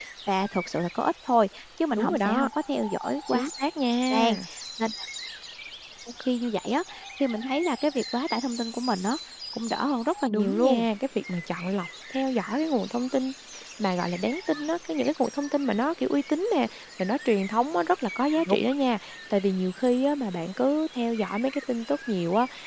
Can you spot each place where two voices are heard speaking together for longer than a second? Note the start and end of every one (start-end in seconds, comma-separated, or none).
none